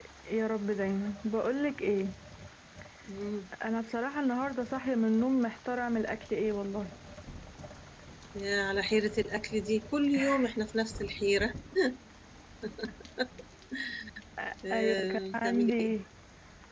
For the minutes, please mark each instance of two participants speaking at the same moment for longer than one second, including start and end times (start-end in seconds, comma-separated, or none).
14.7-15.9